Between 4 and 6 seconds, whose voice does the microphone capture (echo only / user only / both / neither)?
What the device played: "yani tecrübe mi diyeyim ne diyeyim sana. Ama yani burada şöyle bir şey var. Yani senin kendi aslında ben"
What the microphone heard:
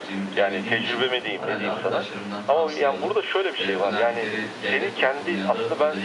both